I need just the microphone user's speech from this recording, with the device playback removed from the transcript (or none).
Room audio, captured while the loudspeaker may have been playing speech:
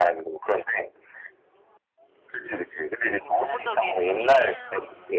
어, 전문적인